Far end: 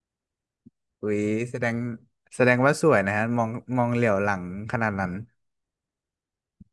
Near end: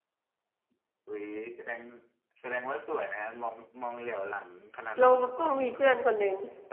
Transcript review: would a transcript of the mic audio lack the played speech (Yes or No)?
No